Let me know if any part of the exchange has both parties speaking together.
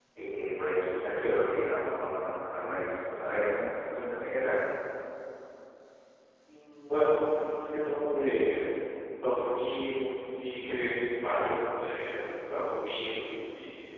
No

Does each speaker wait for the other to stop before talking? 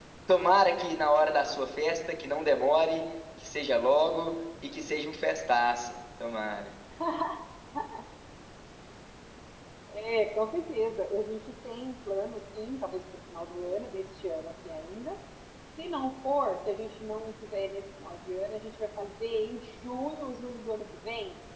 Yes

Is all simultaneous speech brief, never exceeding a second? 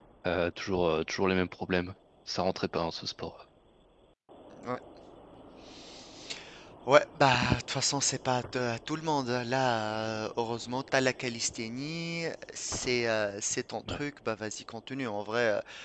Yes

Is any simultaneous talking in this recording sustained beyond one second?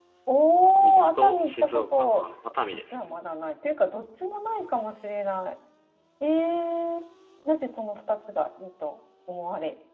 Yes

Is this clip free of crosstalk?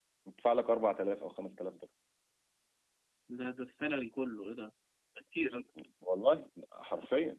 Yes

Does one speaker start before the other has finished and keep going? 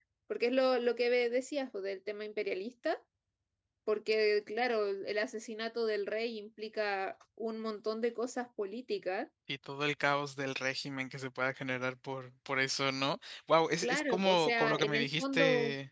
Yes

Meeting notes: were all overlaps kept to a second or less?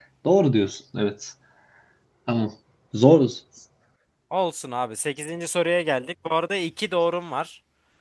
Yes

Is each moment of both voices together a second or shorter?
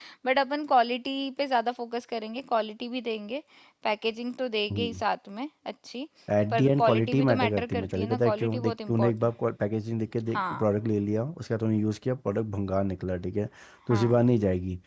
No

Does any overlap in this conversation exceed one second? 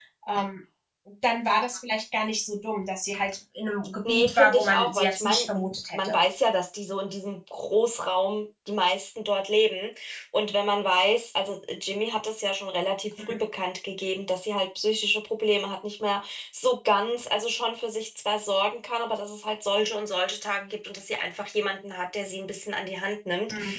Yes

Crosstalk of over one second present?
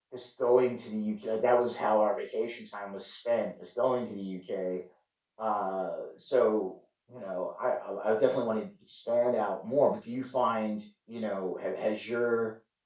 No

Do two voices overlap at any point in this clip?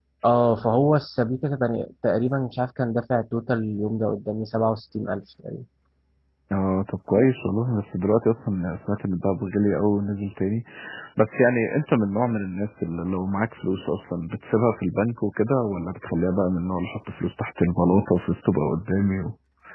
No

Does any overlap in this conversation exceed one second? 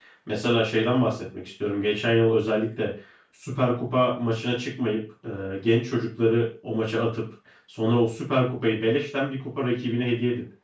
No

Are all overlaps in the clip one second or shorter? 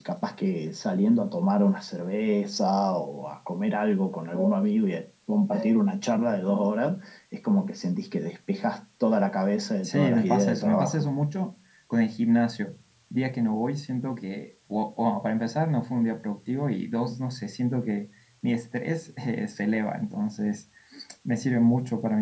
No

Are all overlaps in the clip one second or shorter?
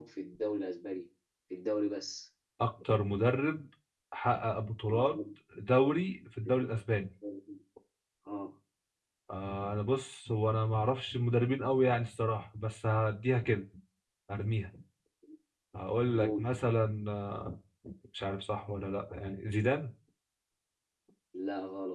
Yes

